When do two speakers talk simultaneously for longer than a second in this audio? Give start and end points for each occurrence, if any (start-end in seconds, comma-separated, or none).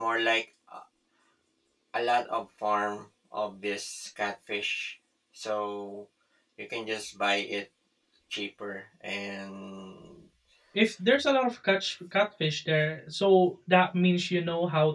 none